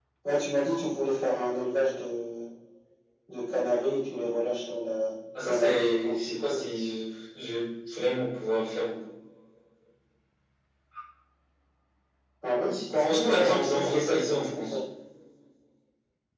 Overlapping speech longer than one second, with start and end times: 5.3-6.7, 12.9-14.8

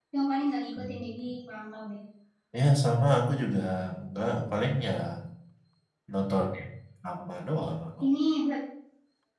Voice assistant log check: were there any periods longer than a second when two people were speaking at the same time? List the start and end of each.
none

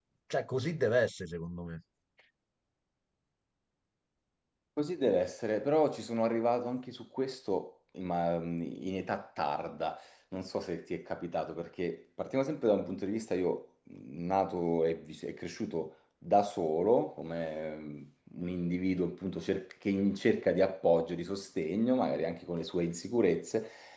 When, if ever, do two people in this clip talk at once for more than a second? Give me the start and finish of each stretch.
none

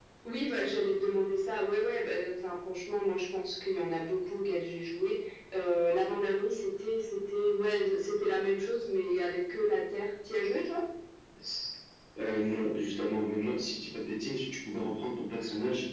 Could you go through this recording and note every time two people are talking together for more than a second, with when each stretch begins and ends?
none

